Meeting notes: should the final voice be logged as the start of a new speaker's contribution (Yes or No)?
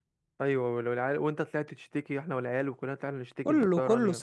Yes